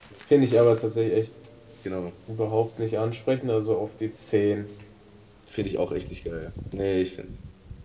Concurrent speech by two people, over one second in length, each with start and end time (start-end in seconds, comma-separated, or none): none